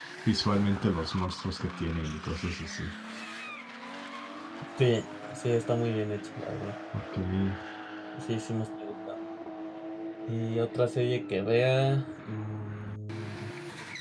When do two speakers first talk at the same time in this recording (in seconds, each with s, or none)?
none